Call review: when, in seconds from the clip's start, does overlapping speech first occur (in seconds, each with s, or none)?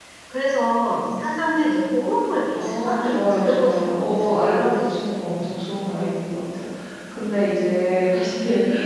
2.5 s